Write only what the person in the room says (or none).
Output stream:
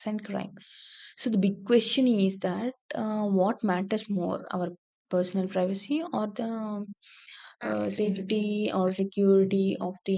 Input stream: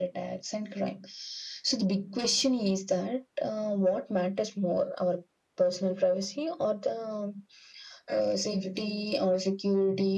none